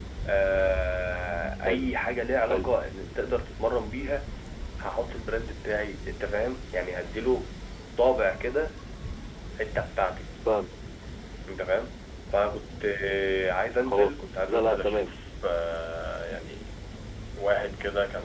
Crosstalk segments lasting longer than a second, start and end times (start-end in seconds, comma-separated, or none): 13.8-15.1